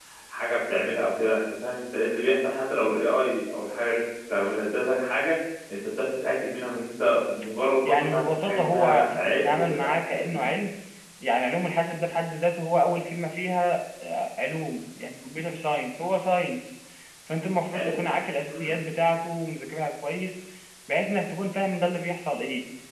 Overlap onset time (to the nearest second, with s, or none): 8 s